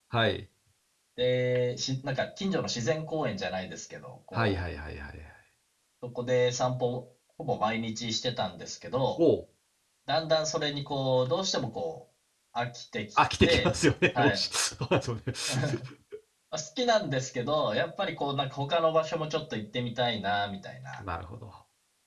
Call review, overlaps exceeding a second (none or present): none